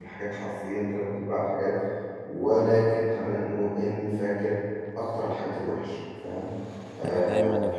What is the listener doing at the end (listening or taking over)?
taking over